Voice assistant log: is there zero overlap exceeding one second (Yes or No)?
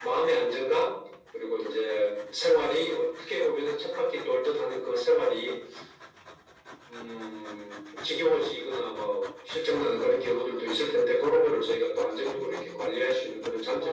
No